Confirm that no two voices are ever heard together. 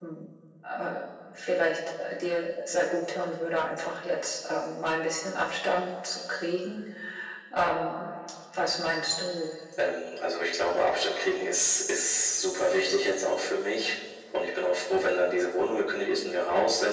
Yes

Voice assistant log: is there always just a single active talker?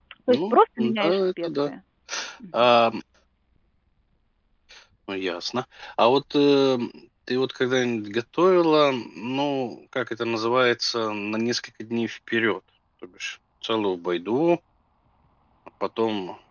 No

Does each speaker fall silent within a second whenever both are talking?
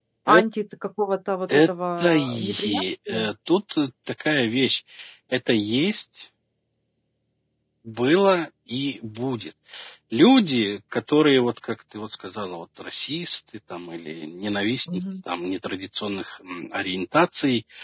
No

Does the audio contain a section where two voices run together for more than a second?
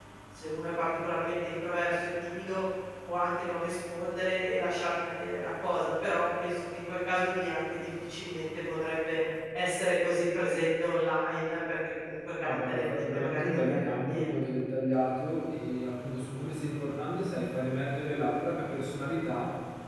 Yes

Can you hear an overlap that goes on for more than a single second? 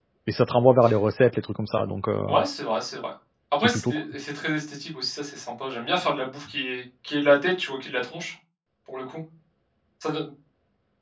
No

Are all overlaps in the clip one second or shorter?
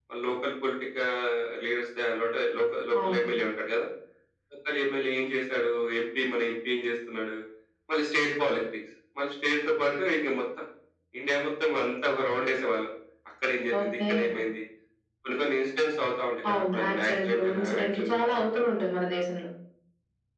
No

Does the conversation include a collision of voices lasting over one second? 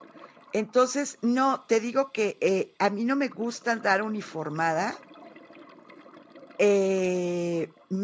No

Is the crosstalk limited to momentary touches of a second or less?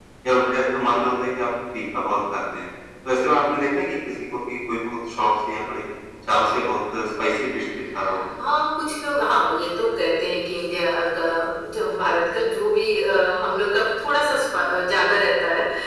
Yes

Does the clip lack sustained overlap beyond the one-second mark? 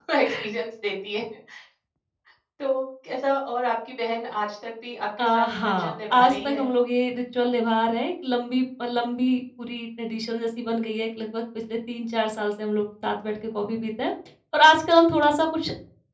No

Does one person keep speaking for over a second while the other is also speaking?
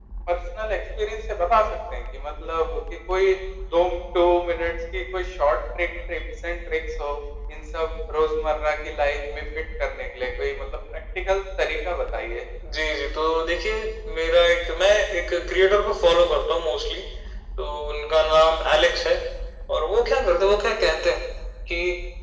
No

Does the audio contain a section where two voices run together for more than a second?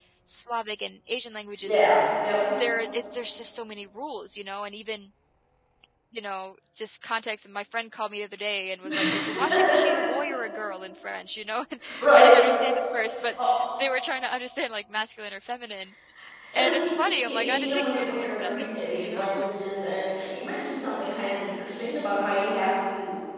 Yes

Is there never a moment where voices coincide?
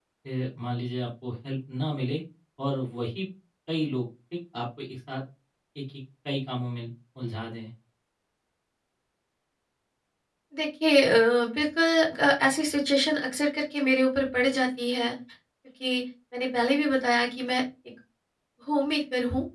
Yes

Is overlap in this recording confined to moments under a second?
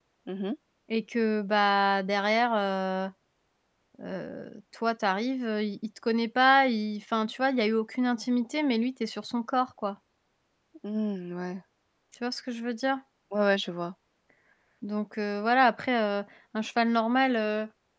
Yes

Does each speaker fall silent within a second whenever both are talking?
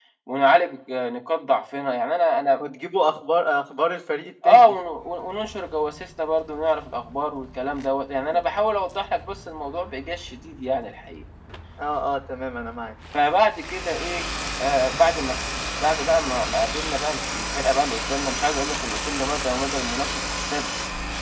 Yes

